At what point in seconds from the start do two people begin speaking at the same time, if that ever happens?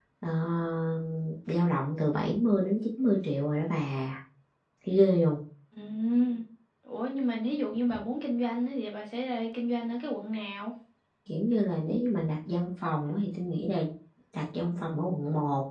none

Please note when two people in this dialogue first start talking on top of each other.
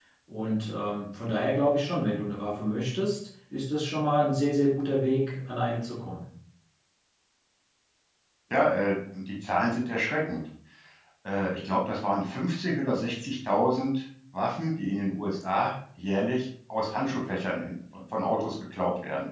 none

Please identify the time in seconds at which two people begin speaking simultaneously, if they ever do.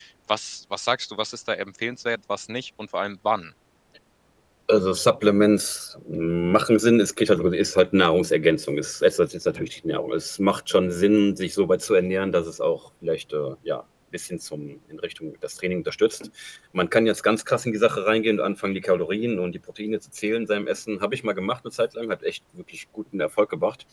none

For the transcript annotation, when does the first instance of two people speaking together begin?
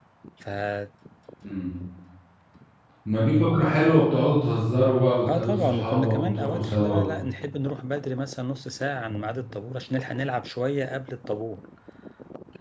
5 s

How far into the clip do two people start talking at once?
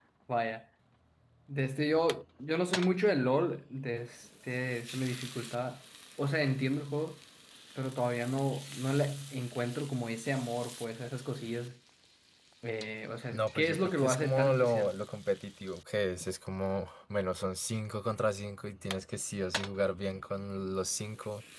13 s

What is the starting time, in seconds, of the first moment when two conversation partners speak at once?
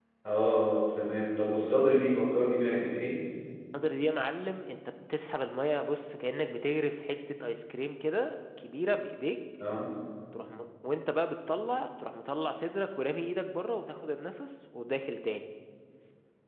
none

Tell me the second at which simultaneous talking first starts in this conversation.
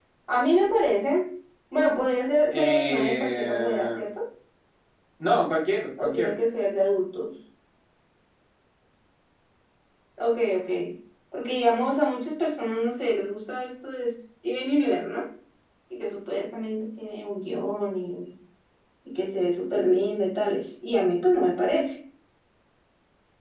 3 s

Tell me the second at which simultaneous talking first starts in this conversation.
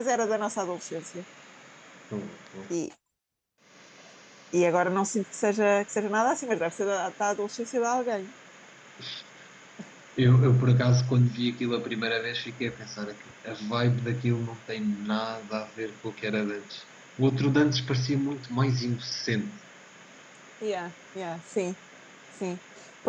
none

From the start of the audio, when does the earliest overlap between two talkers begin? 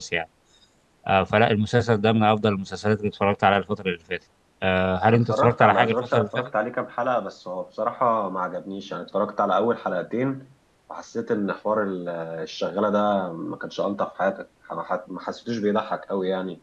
5 s

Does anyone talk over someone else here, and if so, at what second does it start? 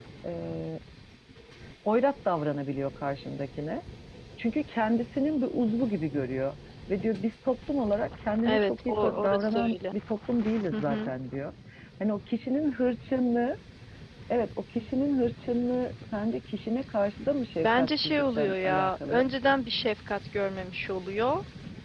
8 s

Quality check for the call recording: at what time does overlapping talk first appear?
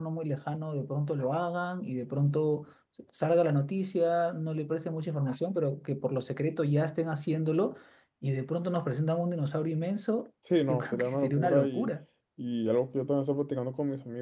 11 s

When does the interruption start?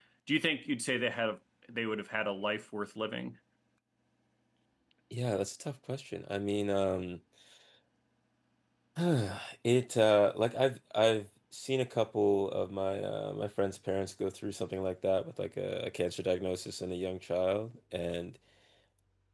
none

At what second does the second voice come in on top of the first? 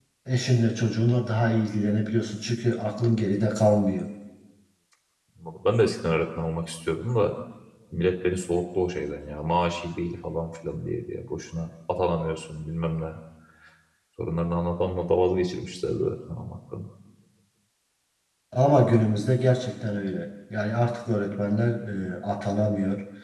none

